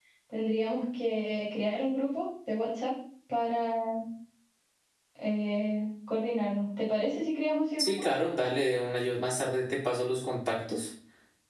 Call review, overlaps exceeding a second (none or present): none